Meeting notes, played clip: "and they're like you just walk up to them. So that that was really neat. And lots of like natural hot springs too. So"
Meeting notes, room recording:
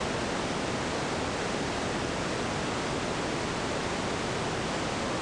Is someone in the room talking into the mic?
No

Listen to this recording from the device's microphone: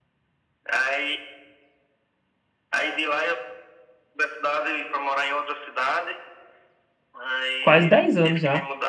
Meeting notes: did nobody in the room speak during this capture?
No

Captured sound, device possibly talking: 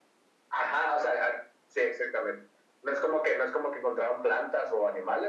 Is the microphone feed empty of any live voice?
Yes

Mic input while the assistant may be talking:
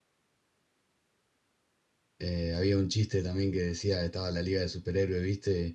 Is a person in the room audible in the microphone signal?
Yes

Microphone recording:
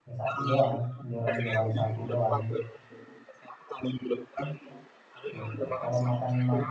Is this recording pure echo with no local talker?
No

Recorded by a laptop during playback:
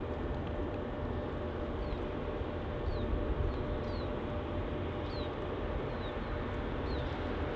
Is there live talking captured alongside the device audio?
No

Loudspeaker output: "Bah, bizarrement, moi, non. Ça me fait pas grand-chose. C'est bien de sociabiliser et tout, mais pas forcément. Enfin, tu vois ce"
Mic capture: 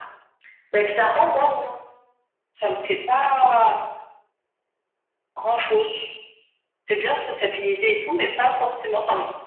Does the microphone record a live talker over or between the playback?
No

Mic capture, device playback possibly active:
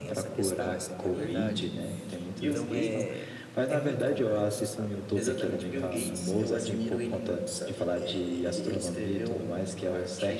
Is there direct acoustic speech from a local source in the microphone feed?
Yes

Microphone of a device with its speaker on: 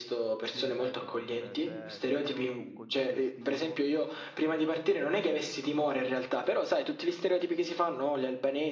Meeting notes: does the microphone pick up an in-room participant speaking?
Yes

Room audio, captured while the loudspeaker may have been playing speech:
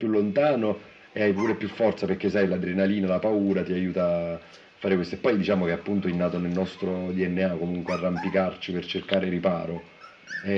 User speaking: No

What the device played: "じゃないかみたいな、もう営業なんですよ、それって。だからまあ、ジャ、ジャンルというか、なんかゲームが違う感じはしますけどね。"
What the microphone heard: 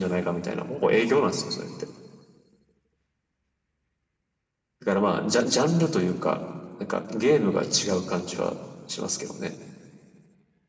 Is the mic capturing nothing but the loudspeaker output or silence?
Yes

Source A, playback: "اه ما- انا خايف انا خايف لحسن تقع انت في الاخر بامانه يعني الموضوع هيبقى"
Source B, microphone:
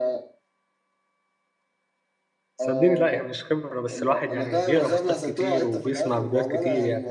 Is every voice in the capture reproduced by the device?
No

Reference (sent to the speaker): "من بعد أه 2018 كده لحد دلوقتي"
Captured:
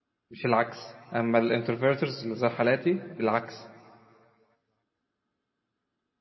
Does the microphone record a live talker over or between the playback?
Yes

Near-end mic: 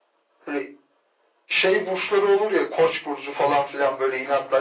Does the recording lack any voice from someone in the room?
Yes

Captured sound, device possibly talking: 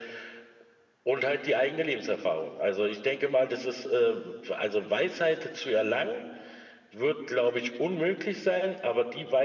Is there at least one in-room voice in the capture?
No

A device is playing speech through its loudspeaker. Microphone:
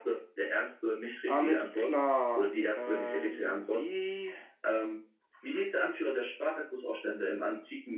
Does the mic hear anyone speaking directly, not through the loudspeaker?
Yes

